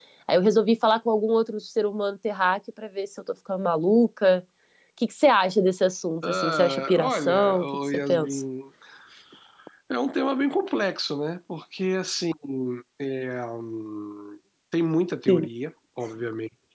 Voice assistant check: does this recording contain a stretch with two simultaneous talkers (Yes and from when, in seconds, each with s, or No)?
Yes, from 6.2 s